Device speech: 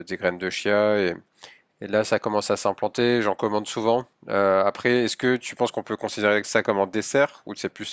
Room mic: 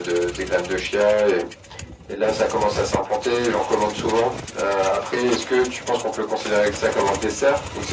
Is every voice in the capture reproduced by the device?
Yes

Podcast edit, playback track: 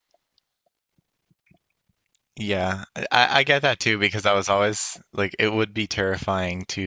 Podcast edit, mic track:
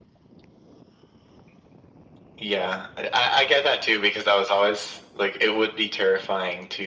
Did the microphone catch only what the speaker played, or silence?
Yes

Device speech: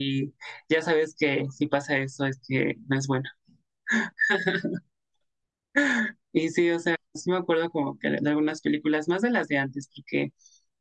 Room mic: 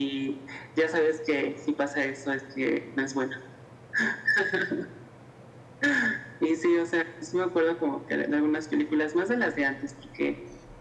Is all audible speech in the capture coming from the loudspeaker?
Yes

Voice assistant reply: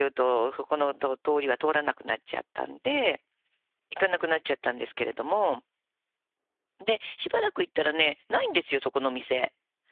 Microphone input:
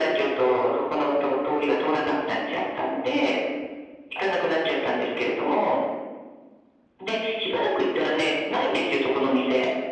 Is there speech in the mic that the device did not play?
No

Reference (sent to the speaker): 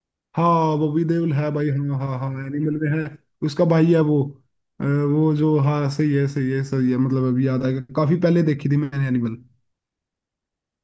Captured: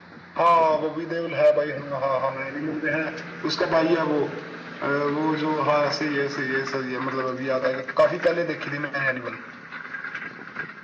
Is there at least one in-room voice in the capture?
No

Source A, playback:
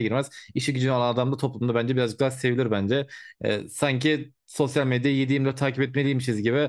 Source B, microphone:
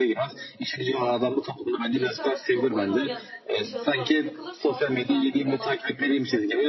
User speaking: Yes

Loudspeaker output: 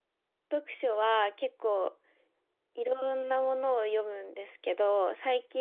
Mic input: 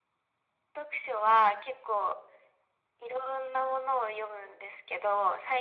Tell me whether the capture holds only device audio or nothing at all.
Yes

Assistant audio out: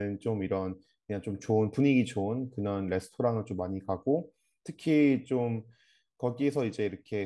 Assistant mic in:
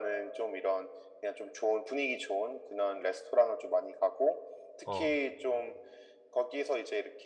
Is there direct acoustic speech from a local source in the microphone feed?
Yes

